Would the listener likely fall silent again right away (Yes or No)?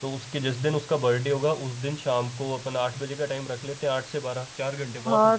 No